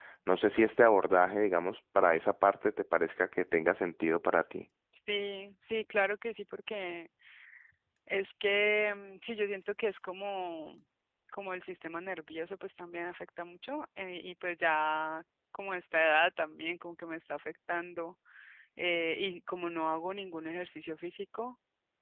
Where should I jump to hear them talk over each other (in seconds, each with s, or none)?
none